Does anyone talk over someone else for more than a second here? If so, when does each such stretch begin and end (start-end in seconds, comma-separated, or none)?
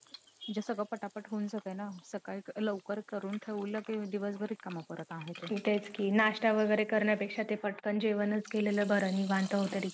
none